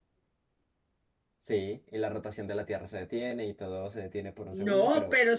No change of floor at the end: No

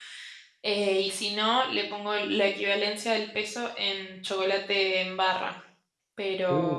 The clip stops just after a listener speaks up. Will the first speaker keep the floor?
Yes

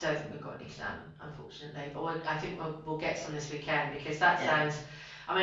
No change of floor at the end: Yes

